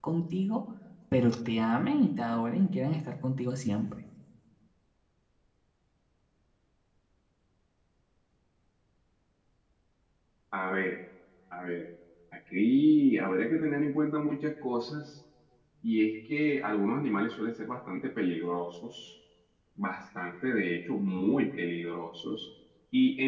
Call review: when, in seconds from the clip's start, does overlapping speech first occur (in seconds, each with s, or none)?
none